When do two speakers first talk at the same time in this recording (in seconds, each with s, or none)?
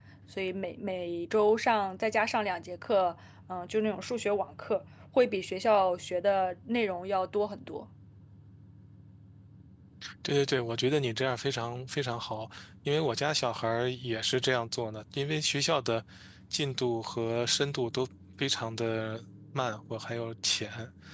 none